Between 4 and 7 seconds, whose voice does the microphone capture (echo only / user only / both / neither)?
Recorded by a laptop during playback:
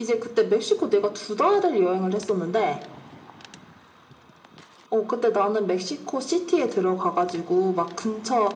echo only